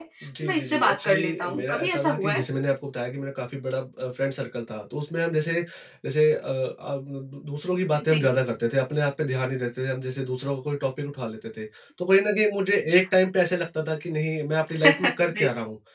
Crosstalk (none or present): present